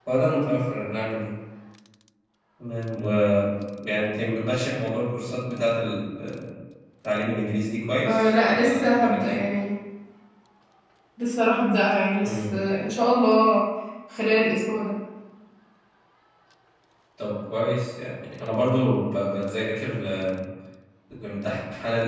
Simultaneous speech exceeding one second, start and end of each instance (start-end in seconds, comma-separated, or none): 8.1-9.4